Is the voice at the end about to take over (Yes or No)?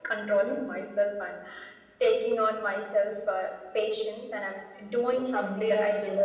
Yes